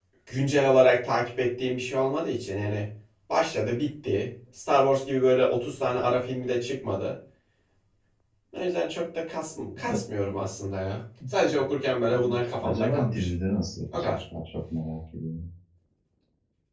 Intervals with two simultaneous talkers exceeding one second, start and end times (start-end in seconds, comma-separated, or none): 12.1-13.3